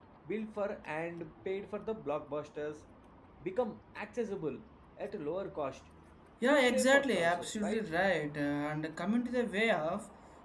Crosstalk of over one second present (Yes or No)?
Yes